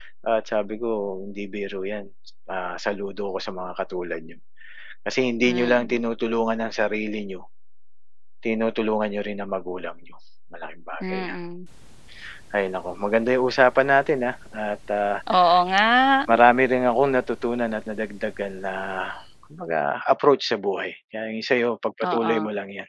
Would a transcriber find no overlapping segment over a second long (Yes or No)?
Yes